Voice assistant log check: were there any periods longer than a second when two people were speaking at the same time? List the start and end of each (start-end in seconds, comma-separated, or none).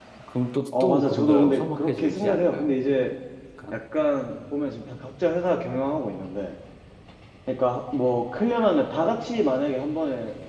0.8-2.7